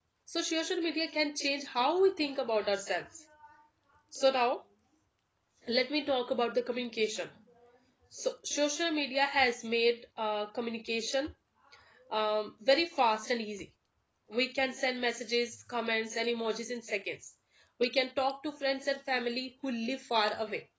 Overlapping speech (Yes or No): No